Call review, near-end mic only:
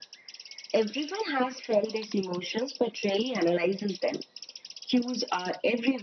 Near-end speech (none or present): none